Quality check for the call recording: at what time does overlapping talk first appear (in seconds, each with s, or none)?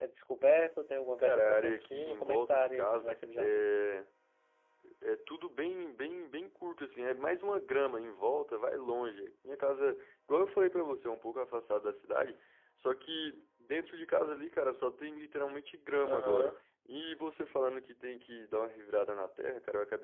1.2 s